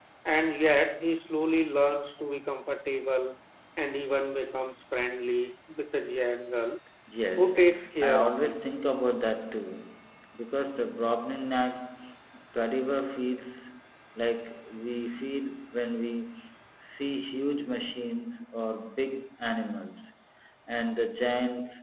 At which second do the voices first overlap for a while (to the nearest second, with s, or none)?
7 s